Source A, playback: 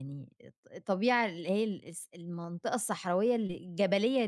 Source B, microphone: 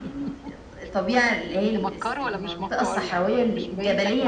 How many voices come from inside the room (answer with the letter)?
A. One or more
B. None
A